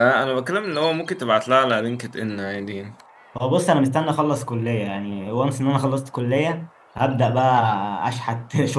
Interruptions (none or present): none